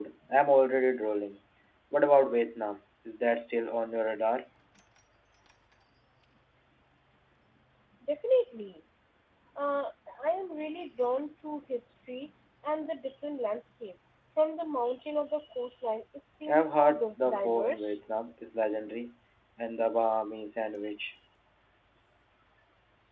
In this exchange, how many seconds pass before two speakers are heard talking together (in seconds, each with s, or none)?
16.5 s